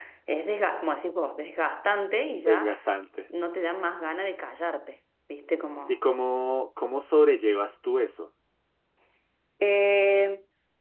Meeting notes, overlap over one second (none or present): none